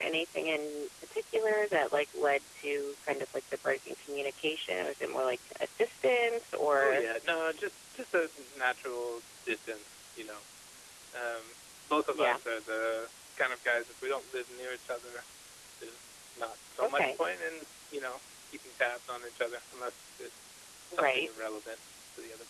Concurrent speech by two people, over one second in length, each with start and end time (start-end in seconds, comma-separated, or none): none